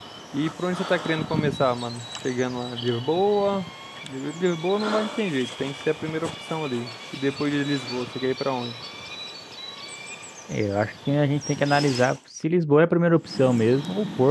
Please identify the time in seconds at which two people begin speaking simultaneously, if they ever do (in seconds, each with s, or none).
none